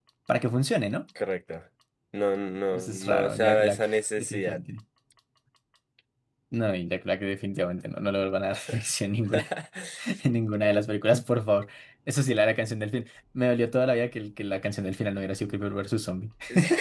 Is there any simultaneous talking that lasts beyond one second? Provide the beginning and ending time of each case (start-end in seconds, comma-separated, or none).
2.7-4.6